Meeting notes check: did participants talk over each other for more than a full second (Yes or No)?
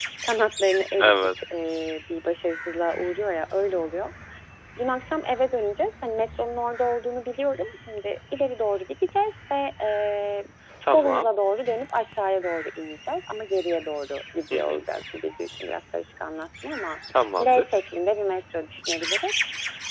No